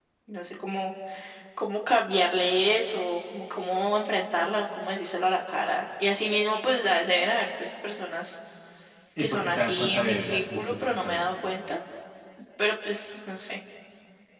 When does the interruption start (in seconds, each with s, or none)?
9.2 s